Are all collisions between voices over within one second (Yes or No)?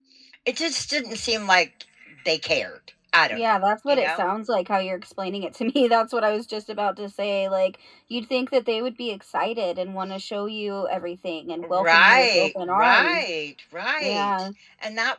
No